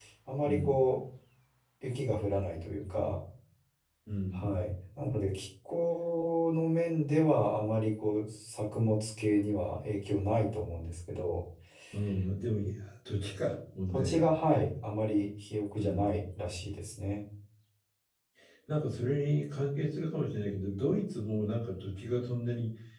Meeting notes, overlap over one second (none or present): none